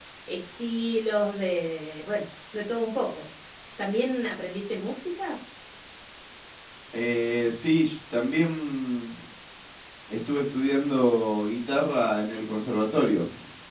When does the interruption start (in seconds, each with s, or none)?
none